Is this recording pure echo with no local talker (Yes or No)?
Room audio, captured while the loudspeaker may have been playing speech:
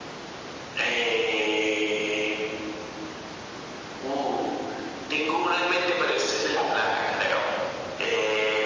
Yes